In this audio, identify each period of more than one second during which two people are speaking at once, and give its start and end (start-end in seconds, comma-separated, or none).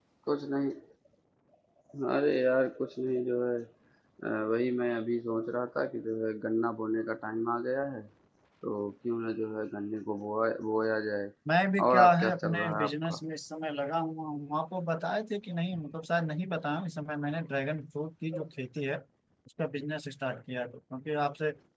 11.9-13.2